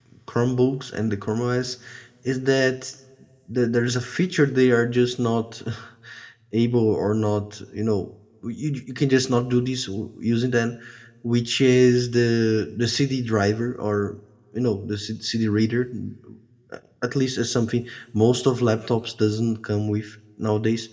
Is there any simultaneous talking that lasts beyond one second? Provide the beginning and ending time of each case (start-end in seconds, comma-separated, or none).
none